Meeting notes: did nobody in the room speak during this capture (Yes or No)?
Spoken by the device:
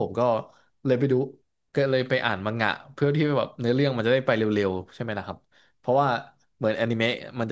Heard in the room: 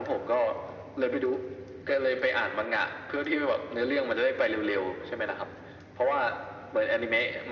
Yes